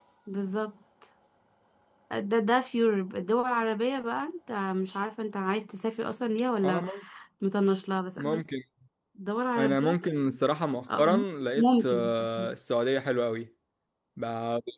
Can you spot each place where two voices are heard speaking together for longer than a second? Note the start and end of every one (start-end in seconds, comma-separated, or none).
none